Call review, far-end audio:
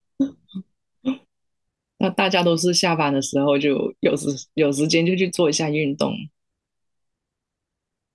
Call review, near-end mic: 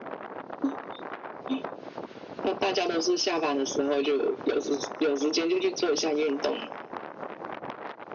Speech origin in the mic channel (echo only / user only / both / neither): echo only